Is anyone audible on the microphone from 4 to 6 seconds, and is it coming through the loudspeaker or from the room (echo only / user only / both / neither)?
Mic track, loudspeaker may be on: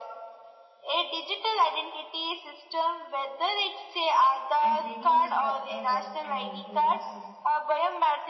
both